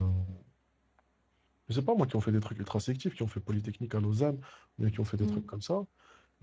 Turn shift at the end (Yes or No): No